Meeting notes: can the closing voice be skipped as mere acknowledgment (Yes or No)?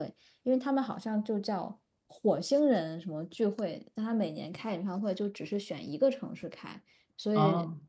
Yes